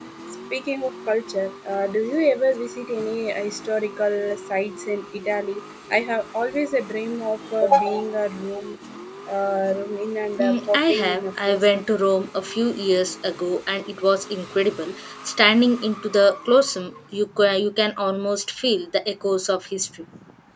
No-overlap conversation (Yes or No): No